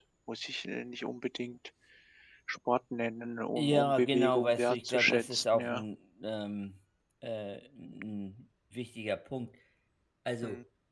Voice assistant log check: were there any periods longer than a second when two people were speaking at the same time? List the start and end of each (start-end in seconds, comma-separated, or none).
3.6-5.8